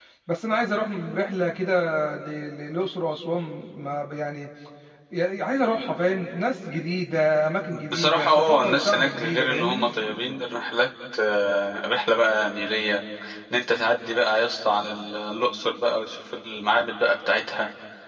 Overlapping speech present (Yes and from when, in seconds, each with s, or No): Yes, from 7.7 s